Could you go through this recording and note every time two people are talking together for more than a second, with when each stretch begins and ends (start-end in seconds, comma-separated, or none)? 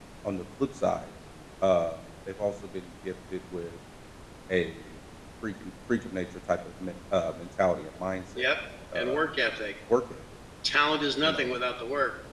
none